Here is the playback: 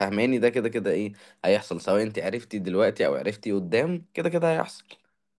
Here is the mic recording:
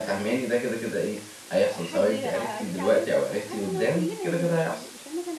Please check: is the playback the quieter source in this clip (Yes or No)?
No